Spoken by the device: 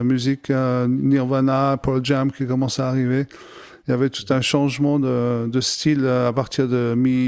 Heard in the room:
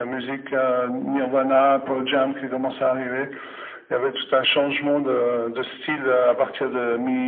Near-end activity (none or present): none